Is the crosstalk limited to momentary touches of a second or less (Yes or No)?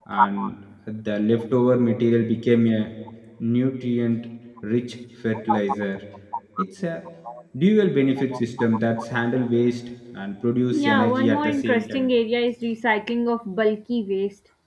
No